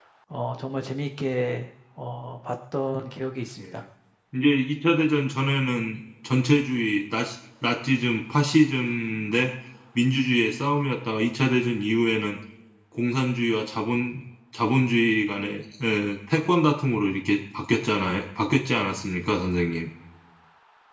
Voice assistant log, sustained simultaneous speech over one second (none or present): none